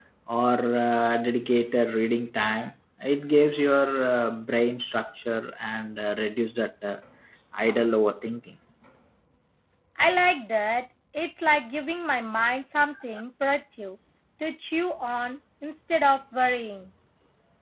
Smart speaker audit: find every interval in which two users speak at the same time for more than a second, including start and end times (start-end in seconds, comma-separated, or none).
none